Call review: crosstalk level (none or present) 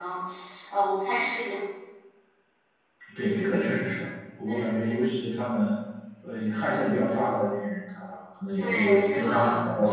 present